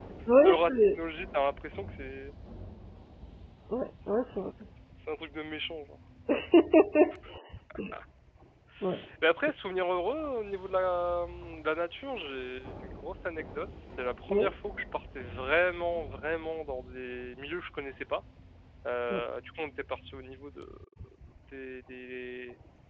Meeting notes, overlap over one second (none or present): none